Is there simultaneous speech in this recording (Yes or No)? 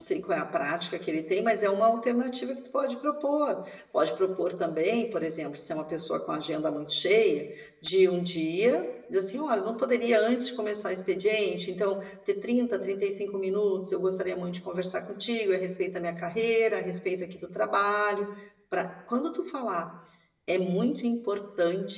No